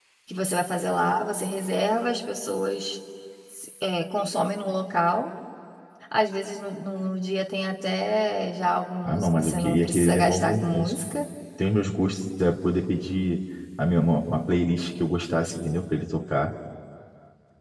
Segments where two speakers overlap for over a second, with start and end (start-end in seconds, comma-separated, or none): 9.0-10.9